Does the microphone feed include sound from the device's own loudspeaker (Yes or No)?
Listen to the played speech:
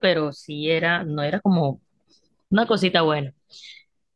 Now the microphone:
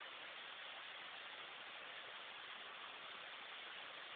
No